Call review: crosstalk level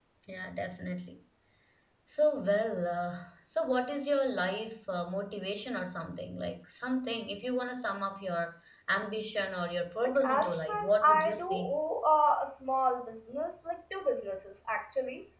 present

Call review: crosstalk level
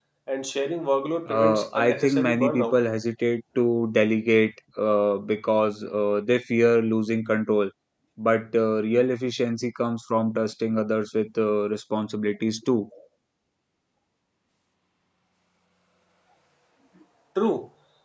present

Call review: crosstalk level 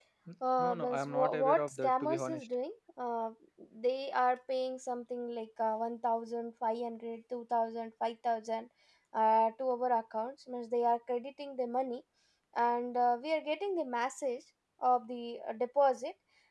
present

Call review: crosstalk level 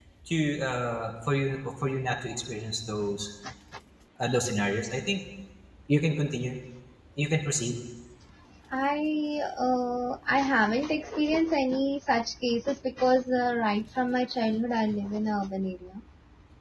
none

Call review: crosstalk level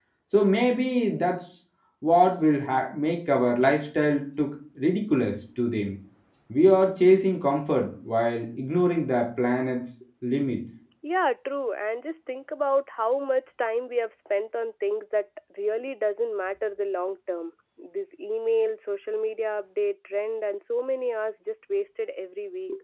none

